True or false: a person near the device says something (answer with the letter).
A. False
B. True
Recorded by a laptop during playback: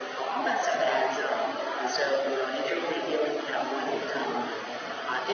B